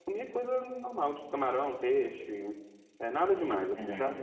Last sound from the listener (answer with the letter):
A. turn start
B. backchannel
A